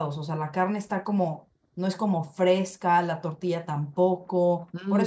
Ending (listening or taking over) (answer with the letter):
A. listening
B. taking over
B